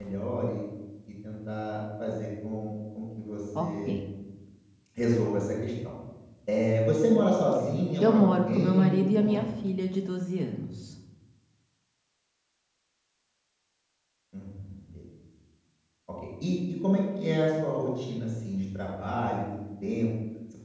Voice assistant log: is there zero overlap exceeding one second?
No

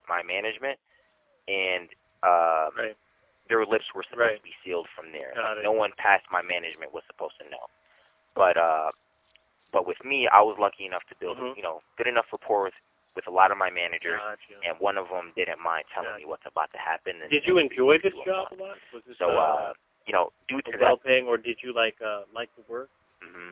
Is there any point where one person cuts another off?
Yes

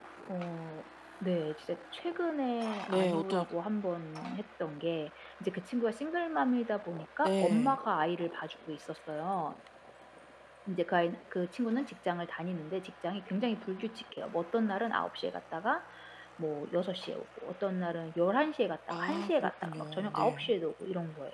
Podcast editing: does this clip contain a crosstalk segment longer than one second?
Yes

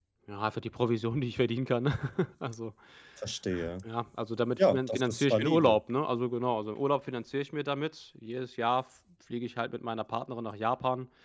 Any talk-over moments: Yes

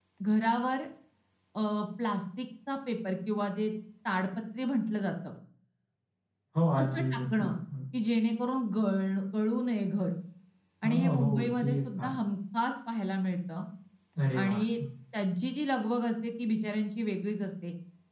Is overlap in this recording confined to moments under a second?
No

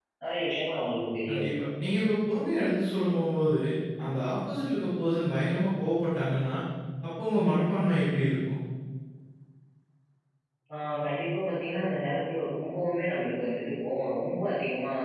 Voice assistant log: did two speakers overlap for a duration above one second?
No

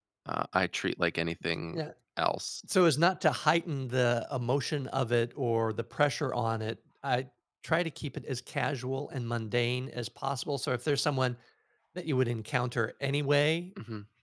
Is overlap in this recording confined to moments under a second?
Yes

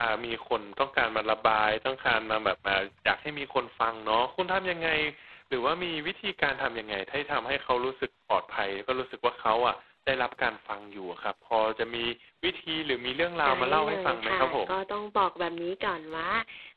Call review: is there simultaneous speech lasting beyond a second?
Yes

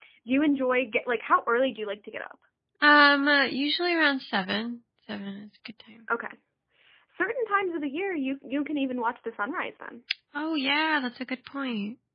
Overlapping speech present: No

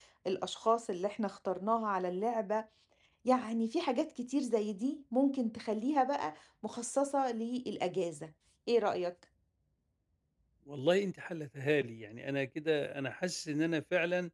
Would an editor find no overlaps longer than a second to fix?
Yes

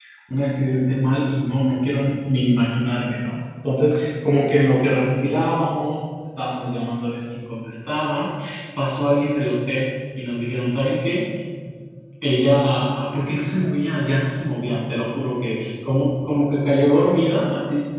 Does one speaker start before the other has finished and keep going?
No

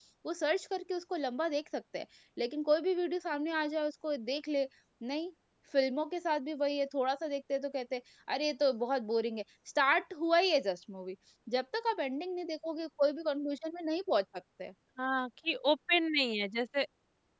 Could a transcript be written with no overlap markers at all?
Yes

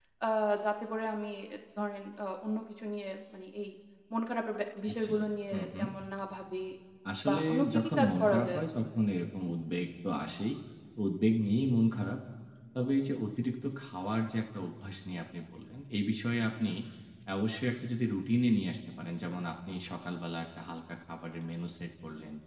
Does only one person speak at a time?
No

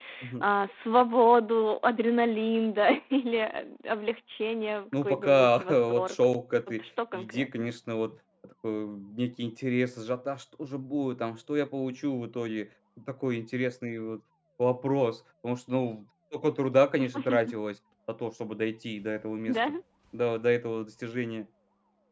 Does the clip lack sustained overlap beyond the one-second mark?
No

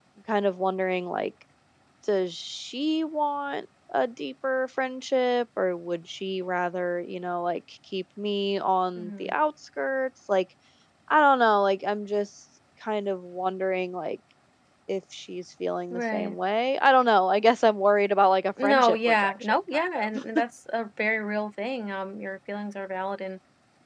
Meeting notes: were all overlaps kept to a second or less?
No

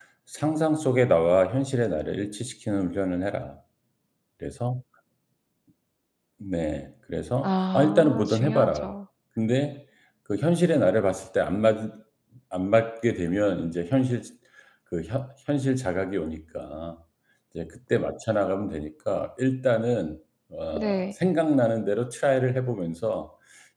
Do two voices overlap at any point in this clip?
Yes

